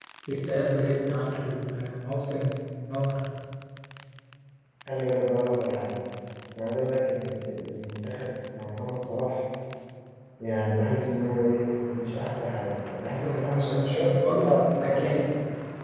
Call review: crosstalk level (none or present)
present